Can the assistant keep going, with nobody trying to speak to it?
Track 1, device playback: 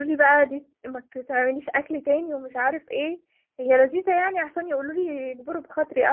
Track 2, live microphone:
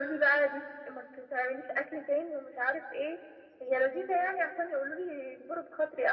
Yes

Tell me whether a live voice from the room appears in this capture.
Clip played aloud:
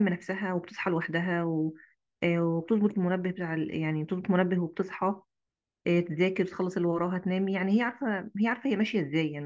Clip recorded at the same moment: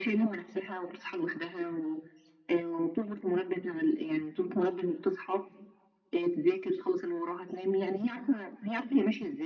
No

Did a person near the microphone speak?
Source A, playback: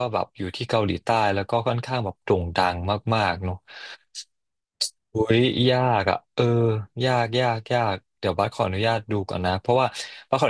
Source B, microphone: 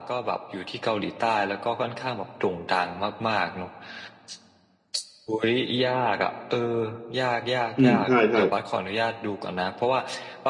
Yes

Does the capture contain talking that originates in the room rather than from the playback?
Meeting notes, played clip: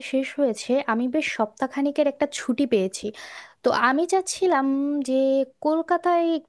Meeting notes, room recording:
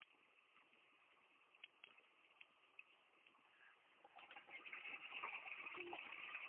No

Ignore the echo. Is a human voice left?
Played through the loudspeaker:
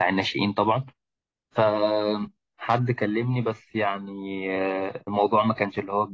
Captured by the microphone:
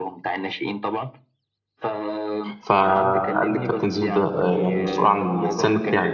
Yes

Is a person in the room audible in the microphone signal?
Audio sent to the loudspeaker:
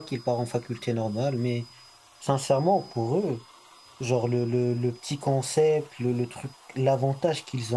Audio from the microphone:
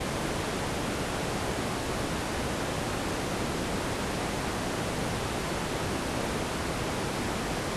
No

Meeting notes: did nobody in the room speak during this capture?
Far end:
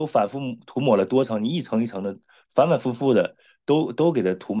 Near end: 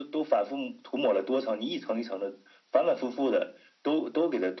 Yes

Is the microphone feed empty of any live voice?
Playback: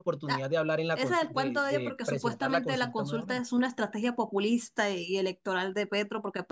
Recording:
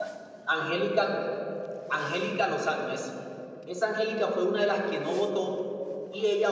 No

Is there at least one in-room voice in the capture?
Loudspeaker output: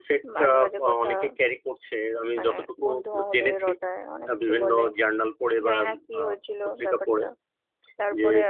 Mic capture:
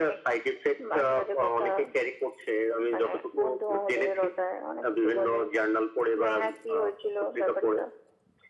No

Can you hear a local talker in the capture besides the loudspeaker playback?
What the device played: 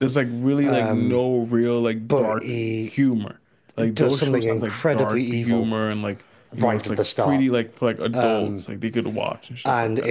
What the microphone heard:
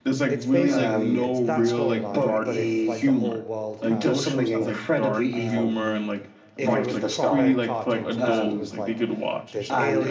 Yes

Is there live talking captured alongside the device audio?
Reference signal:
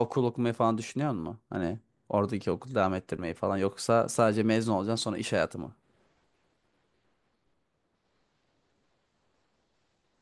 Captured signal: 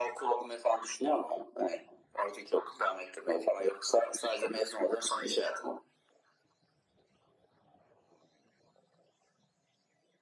No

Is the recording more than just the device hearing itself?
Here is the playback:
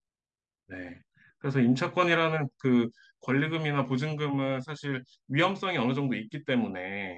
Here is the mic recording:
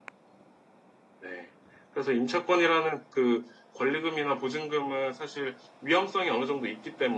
No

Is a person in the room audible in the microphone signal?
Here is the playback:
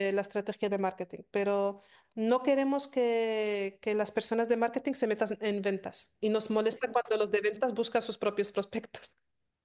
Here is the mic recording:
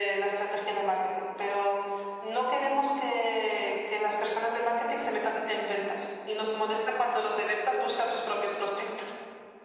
No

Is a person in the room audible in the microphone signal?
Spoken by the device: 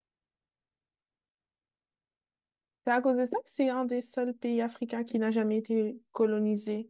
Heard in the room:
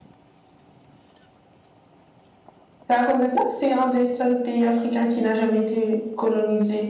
No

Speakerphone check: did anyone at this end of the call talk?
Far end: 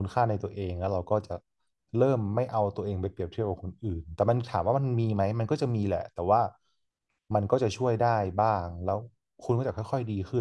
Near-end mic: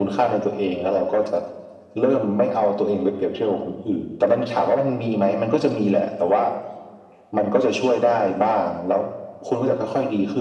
No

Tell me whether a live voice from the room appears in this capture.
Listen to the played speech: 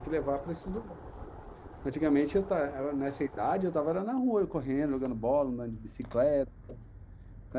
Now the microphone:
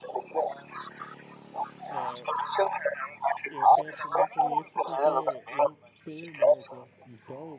Yes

